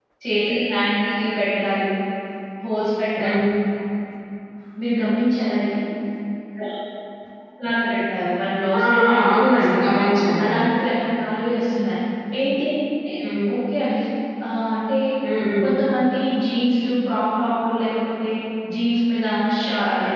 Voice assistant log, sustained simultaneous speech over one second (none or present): present